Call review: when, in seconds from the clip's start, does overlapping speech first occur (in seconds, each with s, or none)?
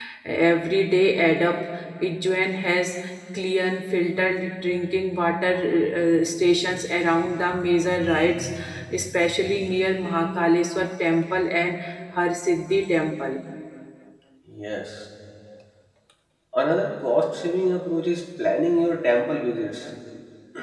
none